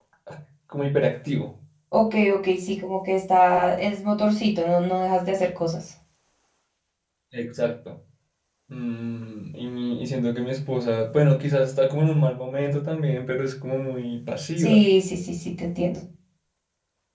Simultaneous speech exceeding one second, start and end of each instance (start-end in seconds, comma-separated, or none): none